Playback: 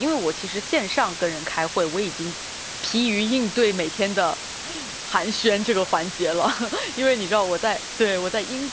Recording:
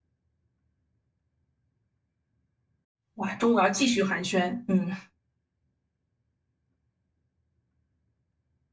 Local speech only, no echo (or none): 哇，中午要继续寒暄。嗯。